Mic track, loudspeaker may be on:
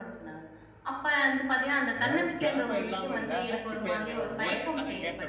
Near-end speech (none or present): present